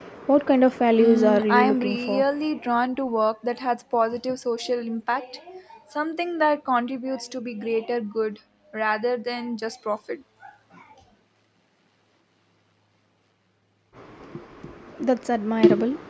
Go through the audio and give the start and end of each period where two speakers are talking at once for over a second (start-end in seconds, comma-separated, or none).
1.0-2.2